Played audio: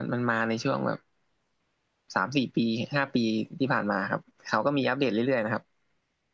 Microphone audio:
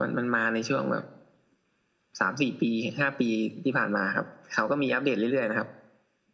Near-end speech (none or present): none